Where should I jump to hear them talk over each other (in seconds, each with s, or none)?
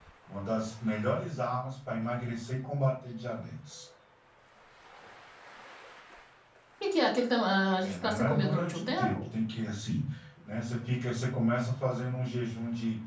7.8 s